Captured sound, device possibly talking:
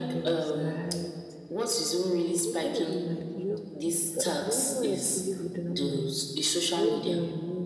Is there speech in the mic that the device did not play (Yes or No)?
Yes